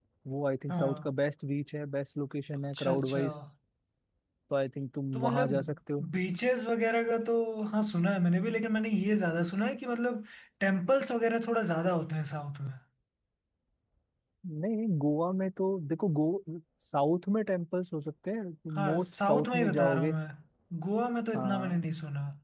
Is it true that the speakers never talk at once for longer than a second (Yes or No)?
No